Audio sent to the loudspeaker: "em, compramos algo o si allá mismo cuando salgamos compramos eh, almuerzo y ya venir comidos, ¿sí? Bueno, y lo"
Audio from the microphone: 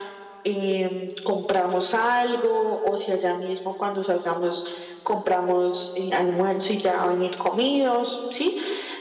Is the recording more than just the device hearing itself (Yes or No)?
No